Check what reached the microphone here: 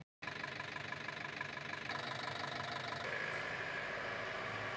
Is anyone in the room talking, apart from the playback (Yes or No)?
No